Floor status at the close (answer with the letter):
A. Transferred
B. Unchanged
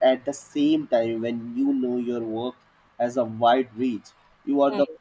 B